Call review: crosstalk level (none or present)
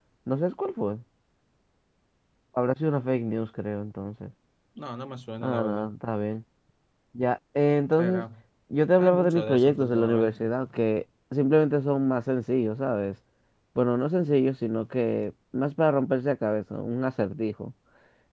present